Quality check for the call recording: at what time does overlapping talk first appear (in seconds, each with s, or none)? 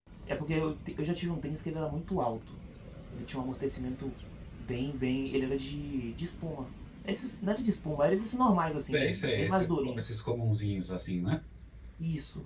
8.9 s